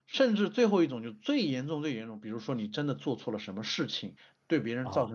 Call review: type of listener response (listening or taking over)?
listening